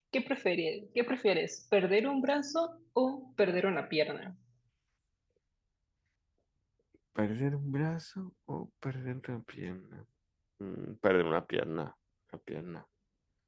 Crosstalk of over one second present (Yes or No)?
No